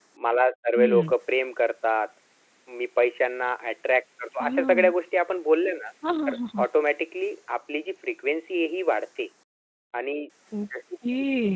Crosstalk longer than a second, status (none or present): none